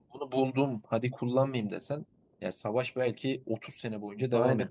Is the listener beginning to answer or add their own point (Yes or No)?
No